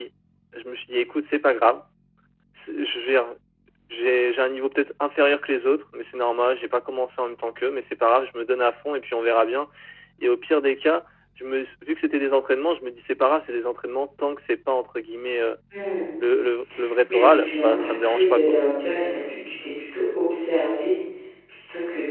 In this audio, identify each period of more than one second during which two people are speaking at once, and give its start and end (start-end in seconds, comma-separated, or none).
17.1-18.6